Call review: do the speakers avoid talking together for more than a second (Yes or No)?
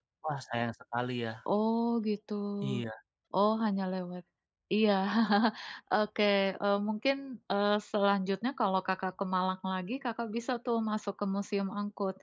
Yes